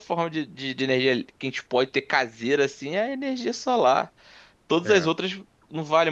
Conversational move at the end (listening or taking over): listening